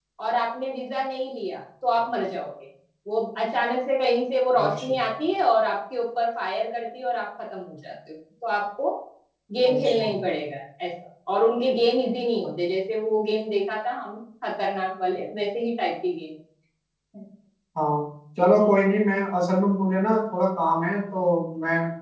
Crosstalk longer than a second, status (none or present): none